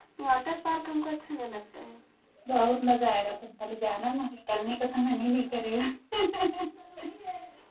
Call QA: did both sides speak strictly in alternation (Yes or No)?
Yes